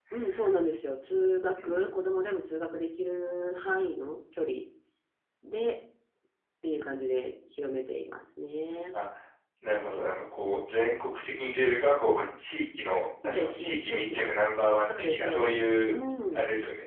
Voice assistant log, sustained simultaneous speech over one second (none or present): present